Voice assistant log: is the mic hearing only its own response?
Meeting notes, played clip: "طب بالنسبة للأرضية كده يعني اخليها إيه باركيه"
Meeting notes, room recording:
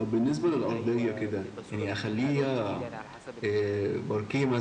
No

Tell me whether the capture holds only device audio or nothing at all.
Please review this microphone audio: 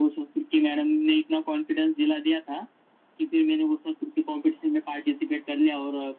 Yes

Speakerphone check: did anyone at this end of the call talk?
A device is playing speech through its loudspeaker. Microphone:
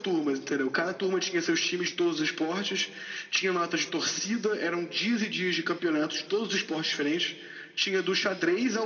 No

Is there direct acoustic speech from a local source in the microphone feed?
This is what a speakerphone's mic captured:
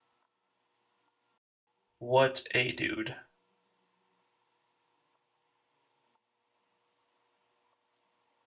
Yes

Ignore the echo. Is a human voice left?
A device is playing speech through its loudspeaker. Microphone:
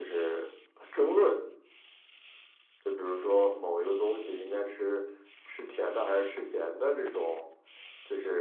No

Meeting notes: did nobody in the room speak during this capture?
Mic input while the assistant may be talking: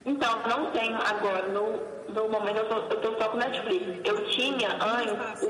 No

